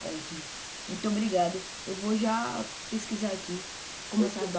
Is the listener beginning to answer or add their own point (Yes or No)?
No